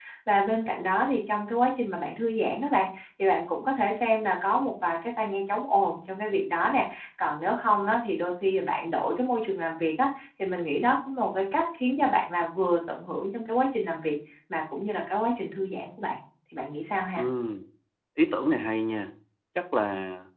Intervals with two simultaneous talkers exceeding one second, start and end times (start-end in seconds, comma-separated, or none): none